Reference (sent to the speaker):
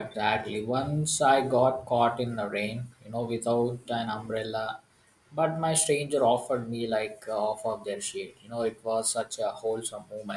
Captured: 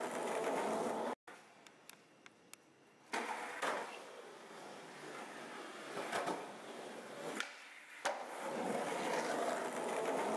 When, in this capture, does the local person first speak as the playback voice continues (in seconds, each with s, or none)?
none